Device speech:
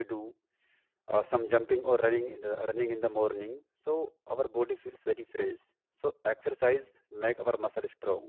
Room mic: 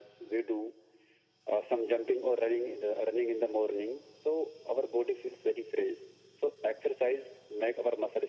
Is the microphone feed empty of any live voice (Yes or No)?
Yes